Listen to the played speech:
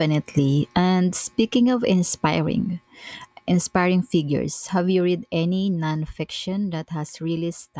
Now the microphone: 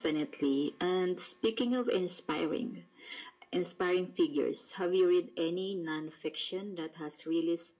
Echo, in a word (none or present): present